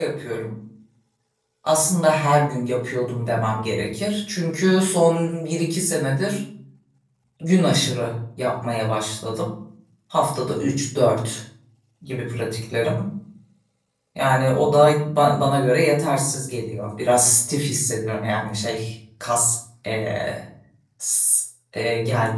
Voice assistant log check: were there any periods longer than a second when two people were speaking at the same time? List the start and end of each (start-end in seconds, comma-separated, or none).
none